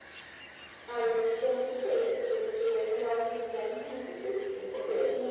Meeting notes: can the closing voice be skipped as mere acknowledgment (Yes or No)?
No